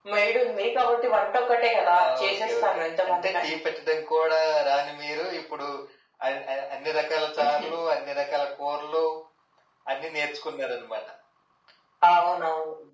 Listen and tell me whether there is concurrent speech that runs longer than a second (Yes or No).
Yes